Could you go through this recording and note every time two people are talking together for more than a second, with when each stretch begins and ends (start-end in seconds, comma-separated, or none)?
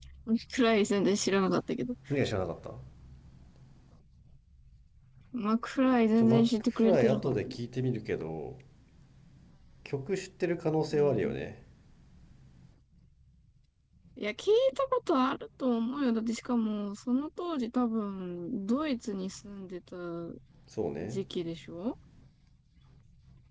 6.2-7.5